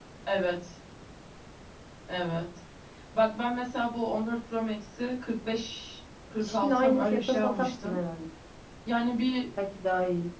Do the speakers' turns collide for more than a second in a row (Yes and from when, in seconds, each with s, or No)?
Yes, from 6.4 s